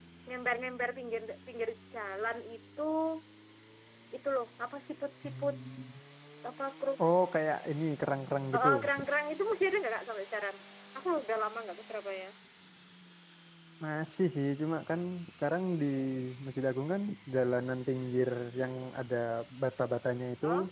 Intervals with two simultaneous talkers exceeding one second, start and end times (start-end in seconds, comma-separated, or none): none